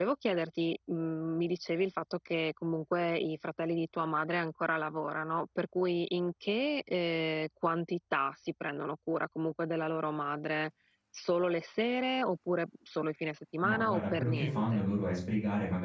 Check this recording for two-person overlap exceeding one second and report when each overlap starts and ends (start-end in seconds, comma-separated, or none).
13.7-14.9